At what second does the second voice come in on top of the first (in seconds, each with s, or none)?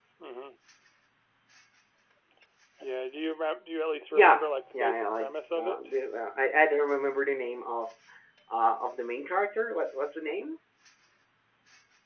4.1 s